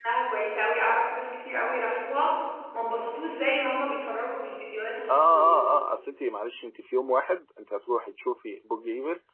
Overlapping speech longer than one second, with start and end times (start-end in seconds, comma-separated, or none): none